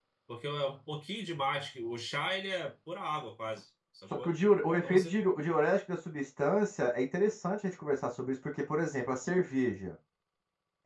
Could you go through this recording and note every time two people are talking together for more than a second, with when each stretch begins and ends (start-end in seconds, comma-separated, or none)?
none